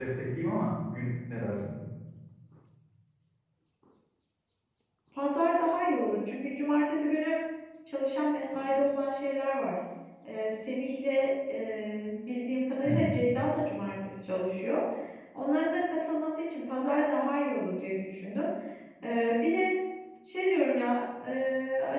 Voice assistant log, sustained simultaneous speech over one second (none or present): none